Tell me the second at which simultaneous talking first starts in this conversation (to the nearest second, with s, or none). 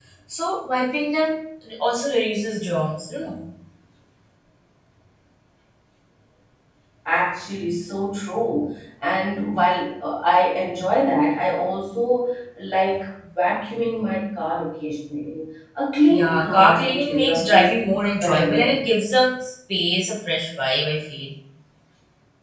16 s